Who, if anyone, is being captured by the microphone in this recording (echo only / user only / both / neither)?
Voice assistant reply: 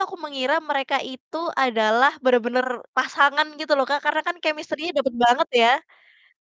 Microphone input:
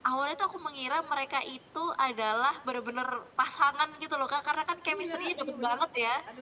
both